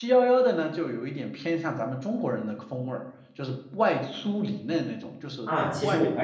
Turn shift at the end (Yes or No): Yes